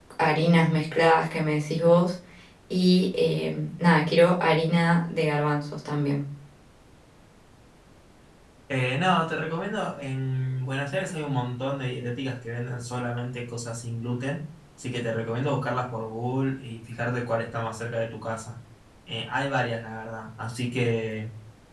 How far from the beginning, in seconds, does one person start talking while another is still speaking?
none

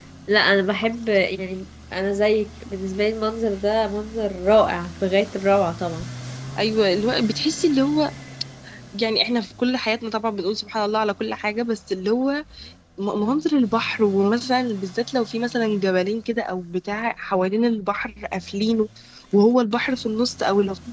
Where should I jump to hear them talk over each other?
none

